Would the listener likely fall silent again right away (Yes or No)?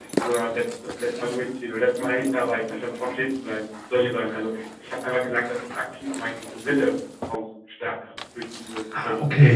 No